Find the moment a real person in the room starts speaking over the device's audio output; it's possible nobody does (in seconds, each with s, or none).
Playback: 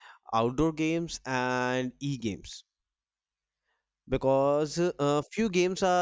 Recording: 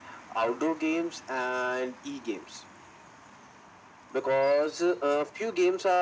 none